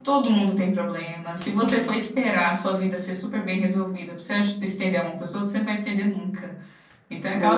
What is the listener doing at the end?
listening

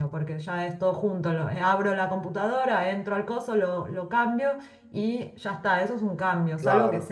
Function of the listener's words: listening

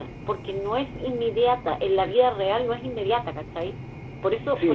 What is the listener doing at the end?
taking over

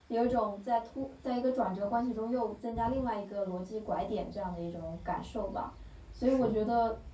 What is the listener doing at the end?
listening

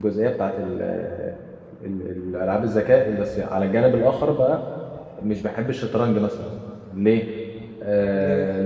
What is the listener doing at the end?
listening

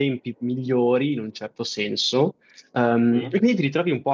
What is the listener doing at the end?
listening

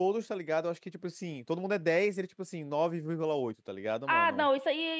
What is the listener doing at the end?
taking over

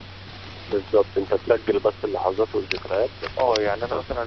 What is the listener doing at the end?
taking over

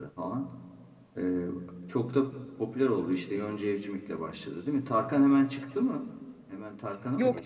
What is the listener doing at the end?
taking over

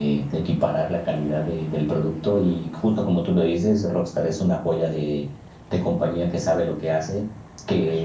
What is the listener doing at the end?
listening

